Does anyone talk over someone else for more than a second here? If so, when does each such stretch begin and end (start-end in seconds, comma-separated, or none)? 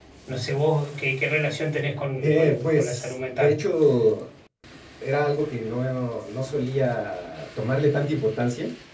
2.2-3.6